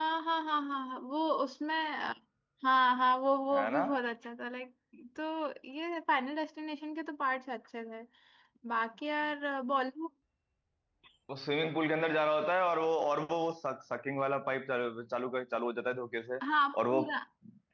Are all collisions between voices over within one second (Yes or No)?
Yes